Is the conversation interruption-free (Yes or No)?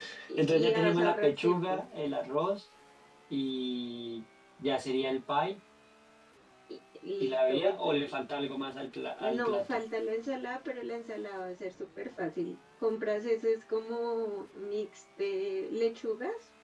No